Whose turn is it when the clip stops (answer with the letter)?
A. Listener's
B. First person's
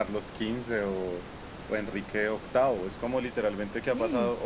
B